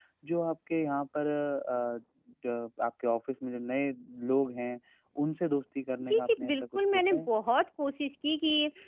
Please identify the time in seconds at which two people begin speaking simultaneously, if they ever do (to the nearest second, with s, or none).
6 s